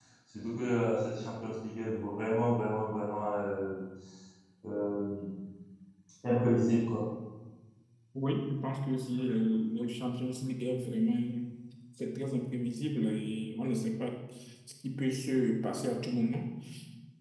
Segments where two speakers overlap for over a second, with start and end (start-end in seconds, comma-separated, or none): none